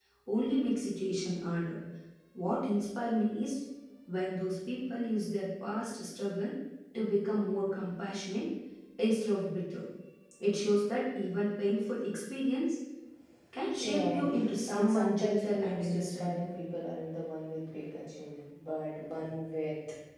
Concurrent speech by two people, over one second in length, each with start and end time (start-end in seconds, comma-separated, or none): 13.8-16.5